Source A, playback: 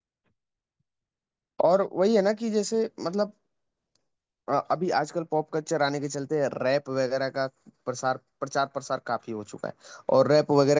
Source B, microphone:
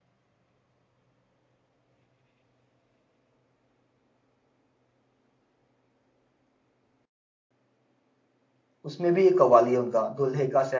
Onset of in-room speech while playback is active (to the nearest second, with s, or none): 9 s